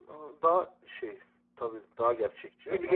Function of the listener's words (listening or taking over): taking over